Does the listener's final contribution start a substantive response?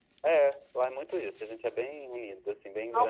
Yes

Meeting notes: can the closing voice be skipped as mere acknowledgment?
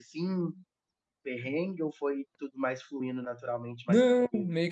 No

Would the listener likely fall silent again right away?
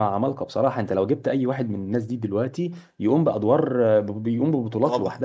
No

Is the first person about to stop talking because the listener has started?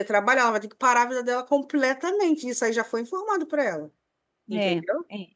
Yes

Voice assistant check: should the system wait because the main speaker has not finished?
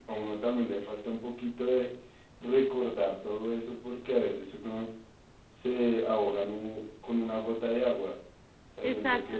No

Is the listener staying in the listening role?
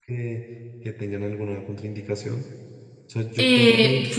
No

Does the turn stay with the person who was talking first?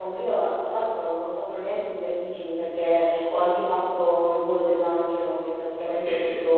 Yes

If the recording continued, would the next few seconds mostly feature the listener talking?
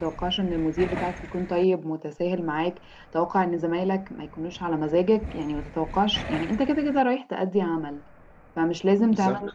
No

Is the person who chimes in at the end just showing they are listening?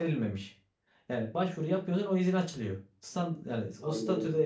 Yes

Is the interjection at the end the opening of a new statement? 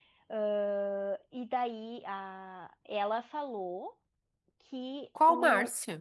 No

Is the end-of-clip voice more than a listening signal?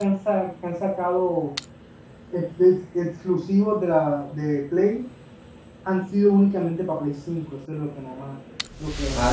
Yes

